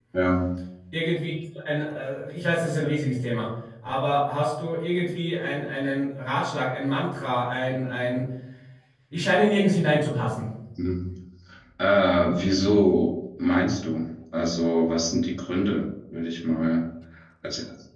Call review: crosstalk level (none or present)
none